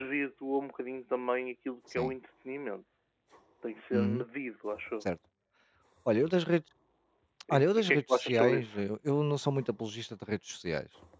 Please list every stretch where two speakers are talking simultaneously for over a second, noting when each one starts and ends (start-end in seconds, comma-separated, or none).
7.5-8.8